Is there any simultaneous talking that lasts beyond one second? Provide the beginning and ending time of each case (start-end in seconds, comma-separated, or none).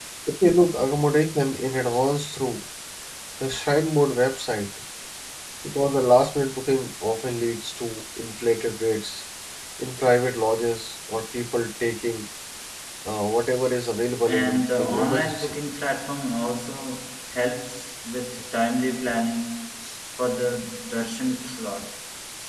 14.3-15.6